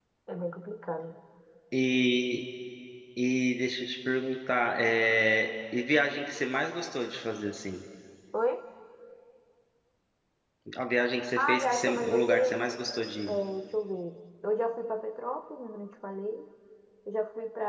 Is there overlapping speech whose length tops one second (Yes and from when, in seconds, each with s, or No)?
Yes, from 11.4 s